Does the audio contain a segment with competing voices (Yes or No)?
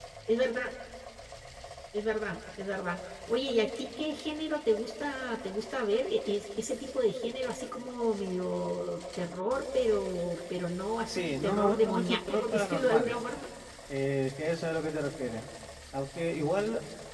Yes